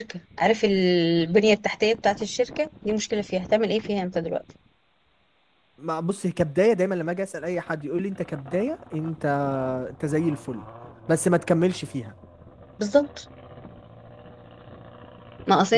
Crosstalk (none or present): none